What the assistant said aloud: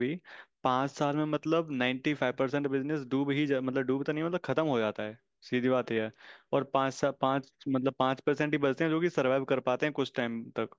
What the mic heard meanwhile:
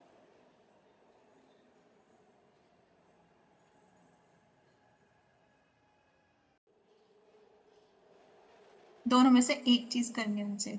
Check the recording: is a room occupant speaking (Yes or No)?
Yes